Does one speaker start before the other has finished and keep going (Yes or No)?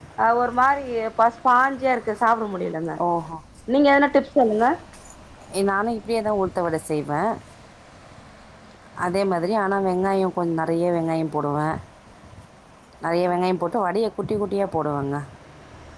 No